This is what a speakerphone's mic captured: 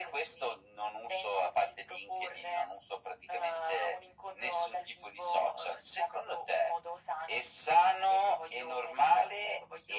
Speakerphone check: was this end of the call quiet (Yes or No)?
Yes